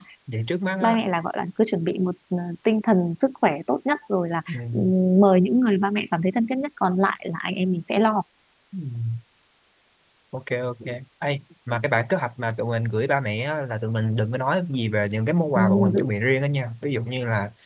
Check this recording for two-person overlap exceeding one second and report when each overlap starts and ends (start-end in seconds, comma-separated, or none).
none